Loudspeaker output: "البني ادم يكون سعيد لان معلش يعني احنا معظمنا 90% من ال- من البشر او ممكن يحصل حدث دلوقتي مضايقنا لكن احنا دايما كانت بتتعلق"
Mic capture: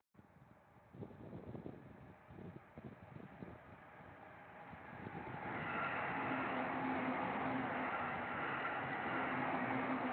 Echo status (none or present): none